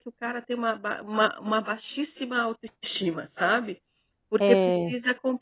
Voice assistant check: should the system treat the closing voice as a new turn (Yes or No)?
No